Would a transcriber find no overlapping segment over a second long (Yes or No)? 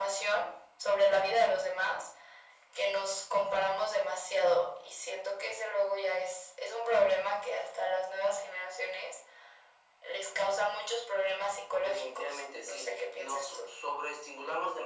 No